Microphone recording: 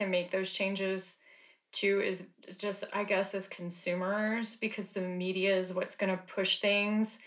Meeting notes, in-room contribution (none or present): none